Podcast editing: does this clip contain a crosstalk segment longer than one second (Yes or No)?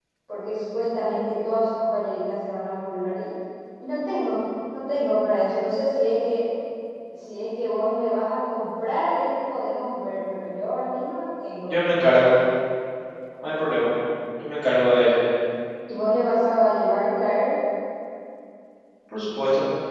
No